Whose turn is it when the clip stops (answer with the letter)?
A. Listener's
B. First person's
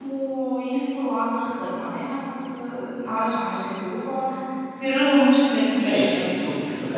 A